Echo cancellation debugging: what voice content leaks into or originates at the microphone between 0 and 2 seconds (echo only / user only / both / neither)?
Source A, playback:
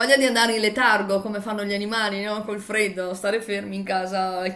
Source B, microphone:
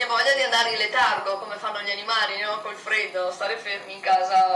echo only